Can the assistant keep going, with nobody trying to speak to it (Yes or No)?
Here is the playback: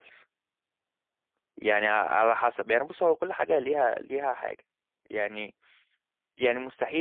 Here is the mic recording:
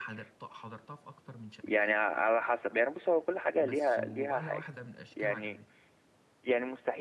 No